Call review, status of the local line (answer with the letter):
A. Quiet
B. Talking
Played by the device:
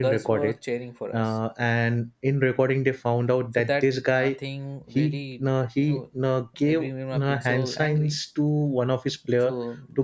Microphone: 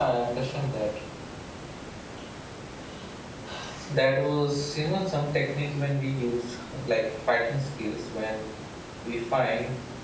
B